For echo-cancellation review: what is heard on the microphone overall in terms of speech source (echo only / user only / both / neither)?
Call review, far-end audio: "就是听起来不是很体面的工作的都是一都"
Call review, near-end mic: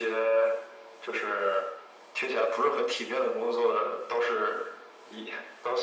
echo only